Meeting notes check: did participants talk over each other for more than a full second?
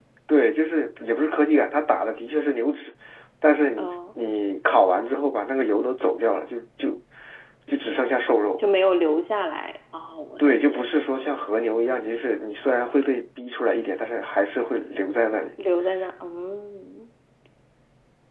No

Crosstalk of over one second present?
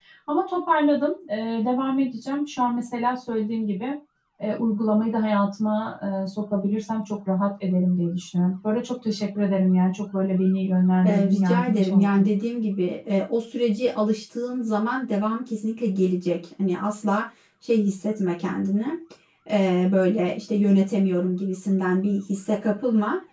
Yes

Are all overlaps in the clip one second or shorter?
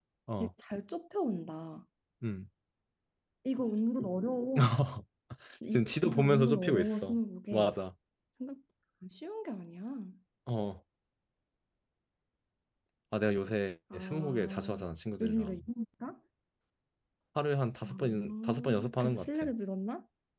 No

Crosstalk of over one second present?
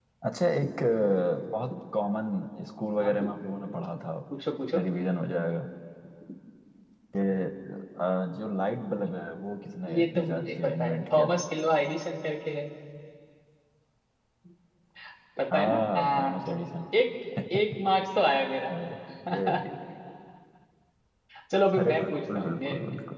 Yes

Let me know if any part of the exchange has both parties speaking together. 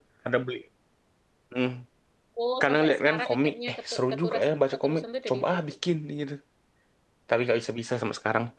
Yes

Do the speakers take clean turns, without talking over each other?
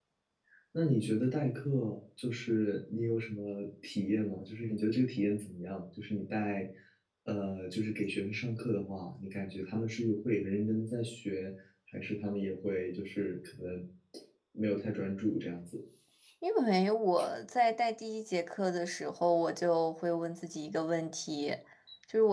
Yes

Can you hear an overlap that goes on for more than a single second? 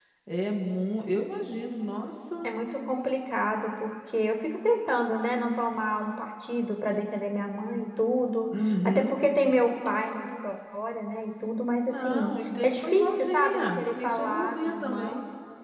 Yes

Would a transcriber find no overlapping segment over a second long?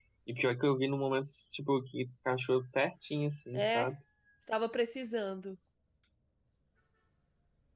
Yes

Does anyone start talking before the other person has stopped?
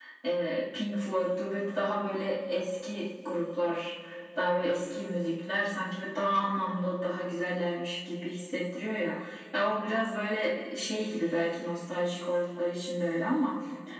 No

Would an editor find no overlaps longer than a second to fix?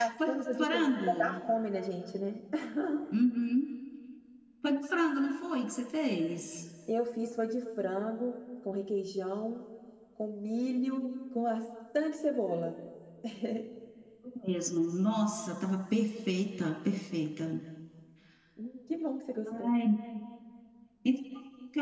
No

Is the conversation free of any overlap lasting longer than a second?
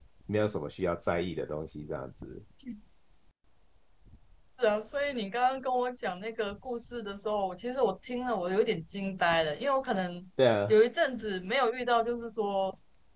Yes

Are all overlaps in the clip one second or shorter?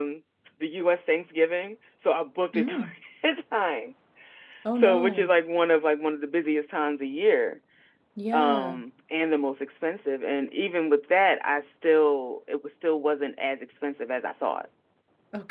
Yes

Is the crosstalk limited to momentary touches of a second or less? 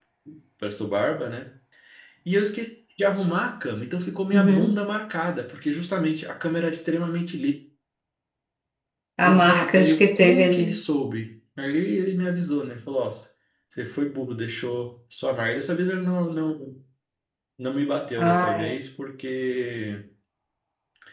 No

